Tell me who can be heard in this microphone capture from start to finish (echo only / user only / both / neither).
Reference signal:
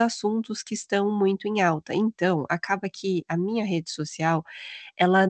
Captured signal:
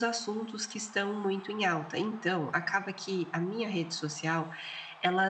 echo only